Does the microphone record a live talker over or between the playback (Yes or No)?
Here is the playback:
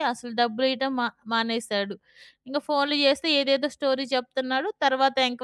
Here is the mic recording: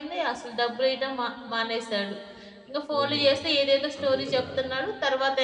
Yes